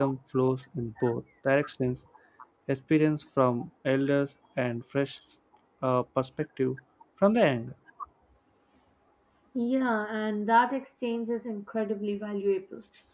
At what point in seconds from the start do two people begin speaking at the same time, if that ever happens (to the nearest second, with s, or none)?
none